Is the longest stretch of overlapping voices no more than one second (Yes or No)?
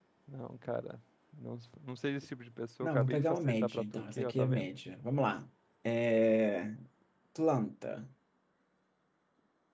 No